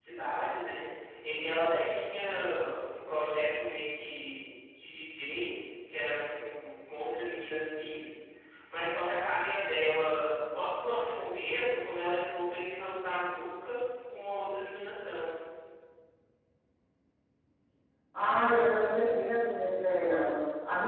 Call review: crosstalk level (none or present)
none